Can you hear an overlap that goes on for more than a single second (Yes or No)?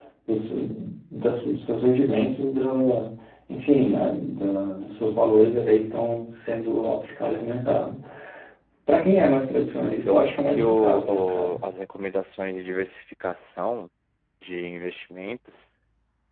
Yes